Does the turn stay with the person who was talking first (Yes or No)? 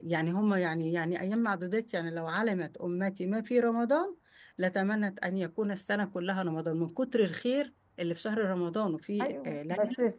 No